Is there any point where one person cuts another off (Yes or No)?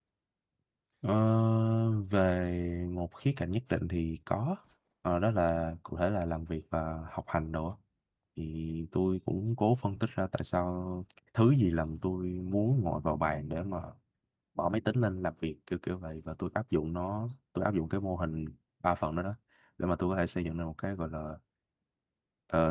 No